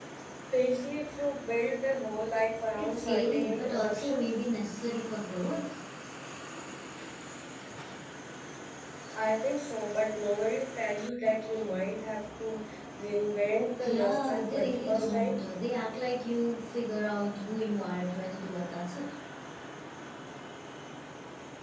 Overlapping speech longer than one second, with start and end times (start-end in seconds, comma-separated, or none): 2.8-4.3, 13.8-15.4